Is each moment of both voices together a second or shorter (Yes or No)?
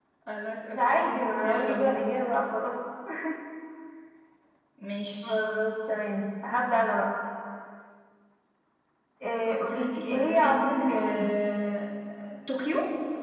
No